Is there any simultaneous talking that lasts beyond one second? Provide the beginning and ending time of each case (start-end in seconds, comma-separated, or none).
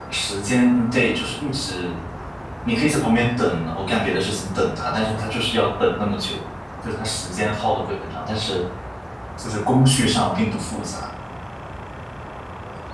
none